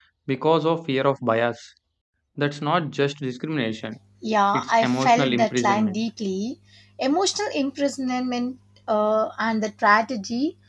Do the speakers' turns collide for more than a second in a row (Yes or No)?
Yes